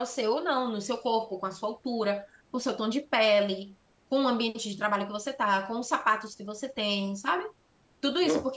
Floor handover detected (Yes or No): No